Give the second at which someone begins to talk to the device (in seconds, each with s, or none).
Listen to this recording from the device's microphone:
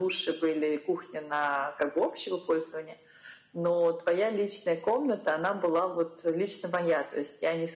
none